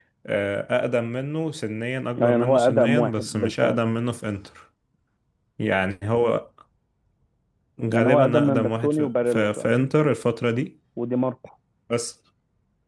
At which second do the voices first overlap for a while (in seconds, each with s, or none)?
2.2 s